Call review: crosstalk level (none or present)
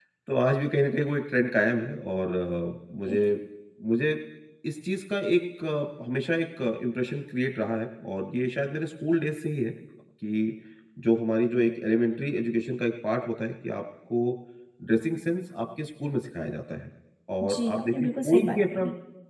present